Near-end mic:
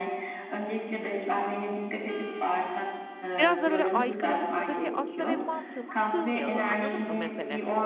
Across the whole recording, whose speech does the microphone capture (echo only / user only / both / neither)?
both